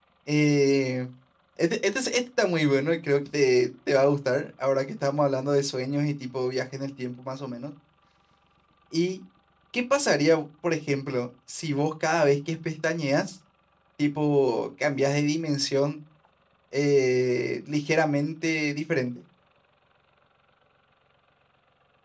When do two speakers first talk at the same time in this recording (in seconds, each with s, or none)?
none